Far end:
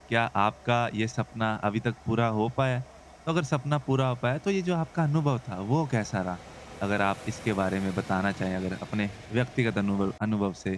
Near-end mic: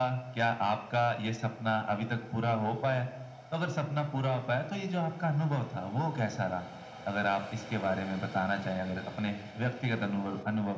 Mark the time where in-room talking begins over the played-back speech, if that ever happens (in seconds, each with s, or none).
none